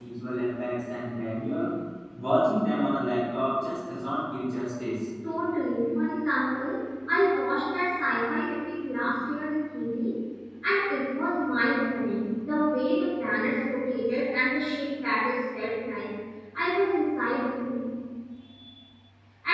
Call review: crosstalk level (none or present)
none